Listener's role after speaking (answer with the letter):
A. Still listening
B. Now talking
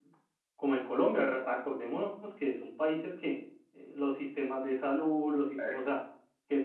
A